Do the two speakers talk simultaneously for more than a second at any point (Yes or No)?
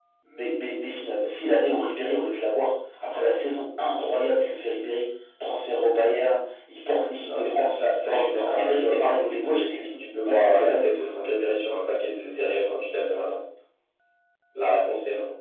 Yes